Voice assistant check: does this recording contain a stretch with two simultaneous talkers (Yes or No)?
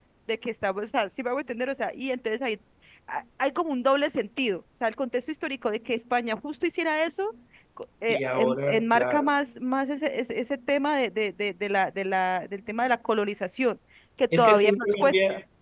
Yes